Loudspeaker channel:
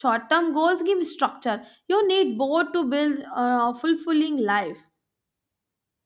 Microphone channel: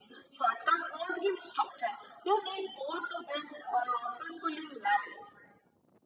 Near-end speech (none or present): none